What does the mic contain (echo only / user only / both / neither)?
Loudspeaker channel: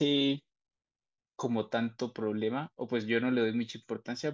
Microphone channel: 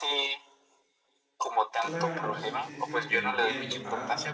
both